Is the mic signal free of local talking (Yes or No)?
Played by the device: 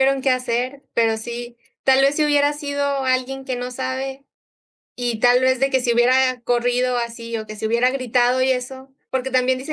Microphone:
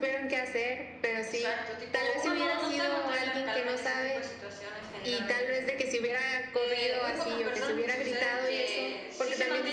No